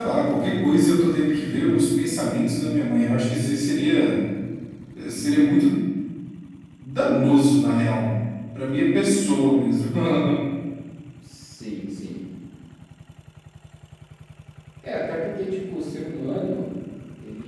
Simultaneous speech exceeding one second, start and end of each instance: none

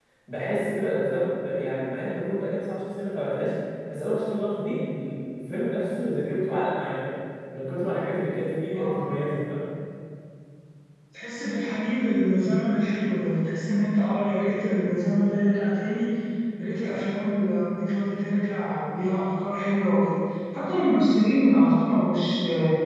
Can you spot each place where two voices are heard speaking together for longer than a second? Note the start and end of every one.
none

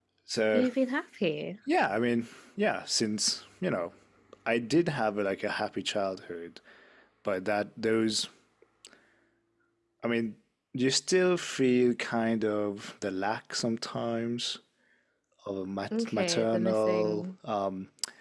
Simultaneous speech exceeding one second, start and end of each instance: 16.0-17.3

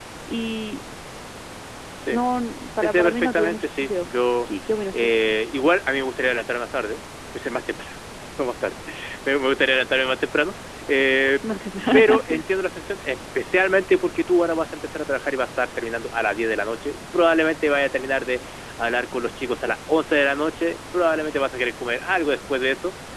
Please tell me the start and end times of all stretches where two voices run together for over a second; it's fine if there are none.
2.8-4.1

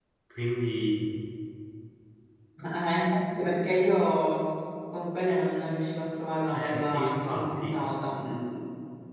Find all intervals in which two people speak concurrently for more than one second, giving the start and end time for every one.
6.5-7.8

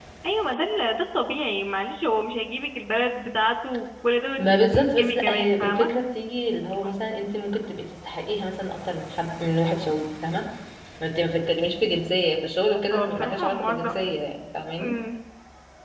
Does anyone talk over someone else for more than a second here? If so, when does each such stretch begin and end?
4.4-5.9, 12.9-14.1

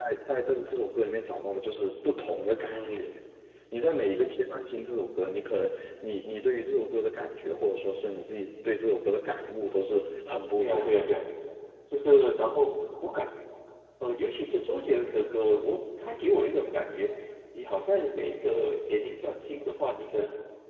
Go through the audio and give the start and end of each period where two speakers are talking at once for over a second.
none

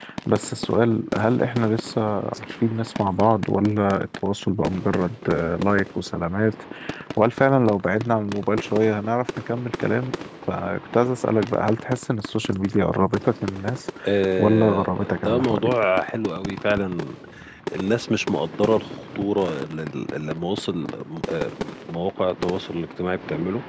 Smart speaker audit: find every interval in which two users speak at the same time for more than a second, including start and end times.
14.4-15.7

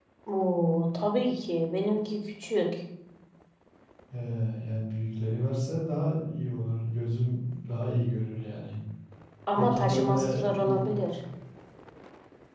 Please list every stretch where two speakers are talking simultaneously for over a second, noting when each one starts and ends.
9.6-10.9

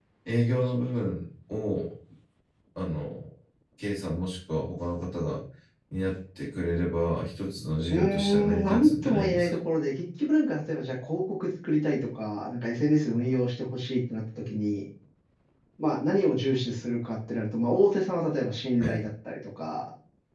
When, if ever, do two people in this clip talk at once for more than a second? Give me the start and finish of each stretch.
7.9-9.5

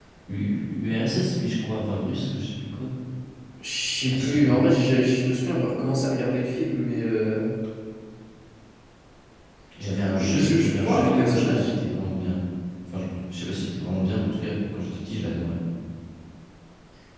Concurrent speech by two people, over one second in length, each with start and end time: 10.2-11.8

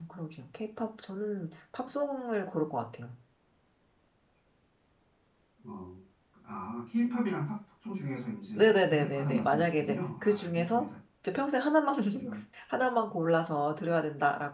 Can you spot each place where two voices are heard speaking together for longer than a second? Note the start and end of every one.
8.6-10.8

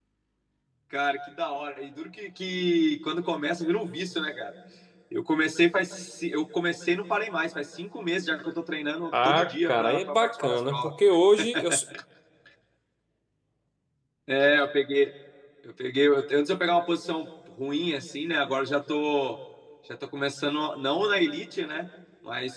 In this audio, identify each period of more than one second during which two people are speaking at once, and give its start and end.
9.2-10.9

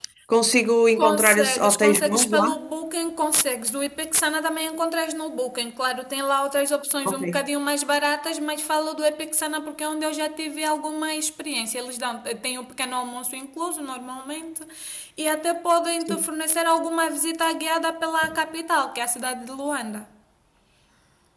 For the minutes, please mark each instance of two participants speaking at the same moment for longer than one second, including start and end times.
1.0-2.4

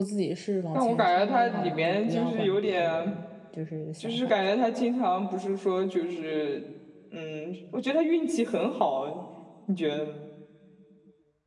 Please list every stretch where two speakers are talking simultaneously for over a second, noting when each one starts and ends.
0.7-3.1

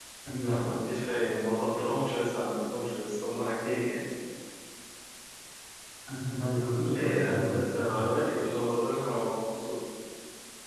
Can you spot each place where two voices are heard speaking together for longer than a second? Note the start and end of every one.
6.8-8.1

